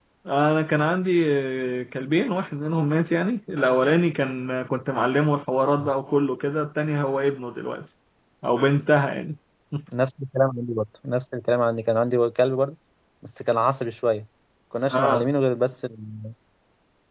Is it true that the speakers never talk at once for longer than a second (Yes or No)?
Yes